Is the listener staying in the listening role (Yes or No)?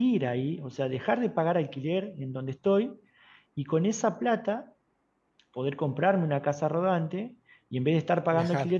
Yes